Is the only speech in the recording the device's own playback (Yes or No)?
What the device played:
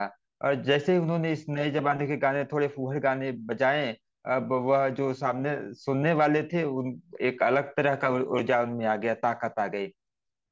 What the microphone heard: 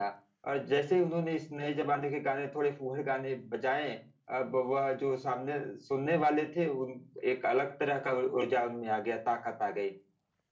Yes